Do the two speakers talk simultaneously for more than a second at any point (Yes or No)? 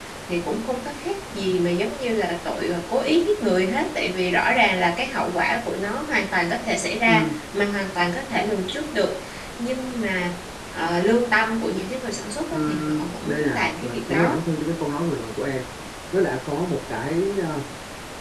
Yes